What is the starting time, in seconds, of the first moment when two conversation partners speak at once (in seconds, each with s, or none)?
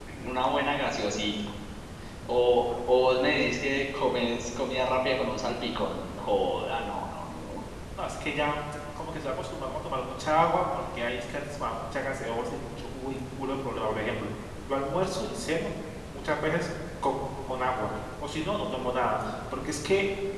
none